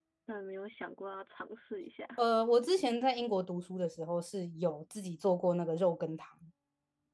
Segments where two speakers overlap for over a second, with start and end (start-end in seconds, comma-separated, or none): none